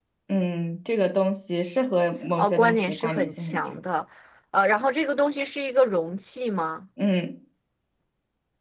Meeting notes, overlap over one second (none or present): present